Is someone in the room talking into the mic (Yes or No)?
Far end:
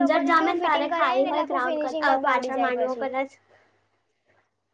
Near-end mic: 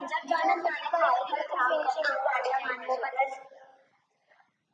No